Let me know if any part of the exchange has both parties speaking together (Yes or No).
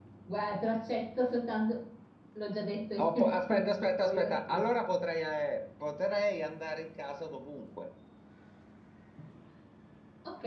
Yes